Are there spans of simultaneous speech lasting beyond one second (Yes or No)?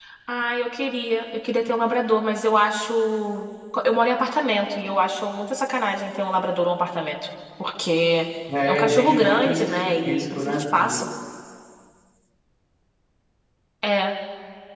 Yes